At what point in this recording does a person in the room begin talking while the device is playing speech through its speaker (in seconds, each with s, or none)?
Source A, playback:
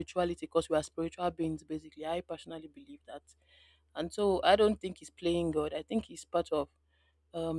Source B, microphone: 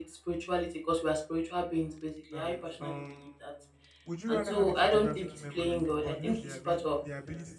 2.3 s